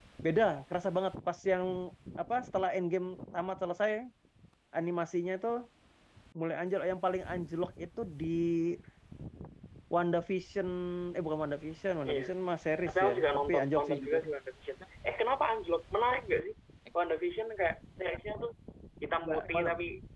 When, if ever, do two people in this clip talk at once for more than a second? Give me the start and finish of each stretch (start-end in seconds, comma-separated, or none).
12.9-14.2